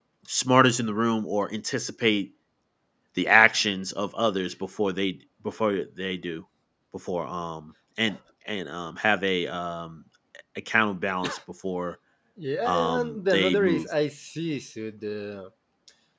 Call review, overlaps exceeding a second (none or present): present